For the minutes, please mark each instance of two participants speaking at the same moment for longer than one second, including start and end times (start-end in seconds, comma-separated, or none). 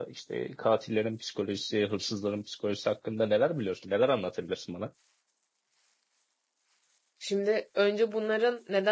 none